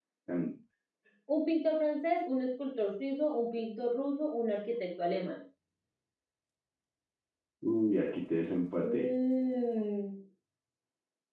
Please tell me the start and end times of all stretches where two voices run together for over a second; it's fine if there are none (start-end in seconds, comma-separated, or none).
none